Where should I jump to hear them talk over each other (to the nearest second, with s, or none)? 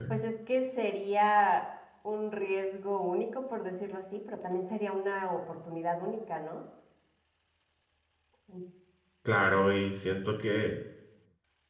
none